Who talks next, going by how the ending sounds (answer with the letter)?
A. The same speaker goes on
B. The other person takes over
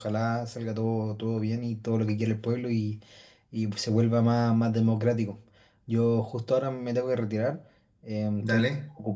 A